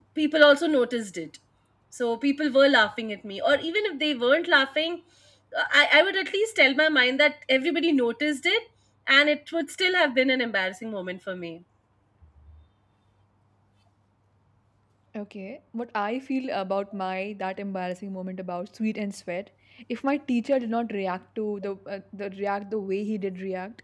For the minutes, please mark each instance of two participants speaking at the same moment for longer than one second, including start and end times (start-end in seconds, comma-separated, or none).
none